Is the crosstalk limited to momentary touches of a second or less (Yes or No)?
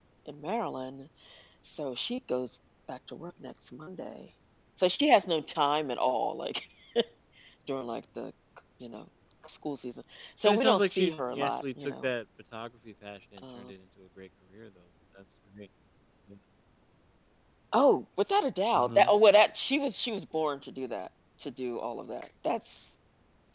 No